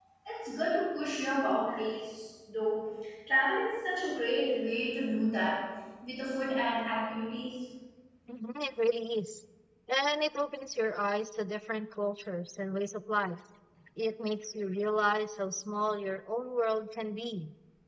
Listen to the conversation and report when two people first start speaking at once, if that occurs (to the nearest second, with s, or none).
none